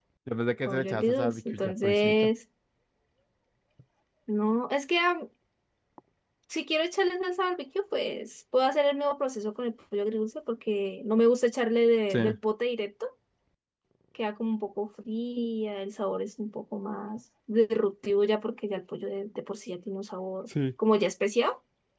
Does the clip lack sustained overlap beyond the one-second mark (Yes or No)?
No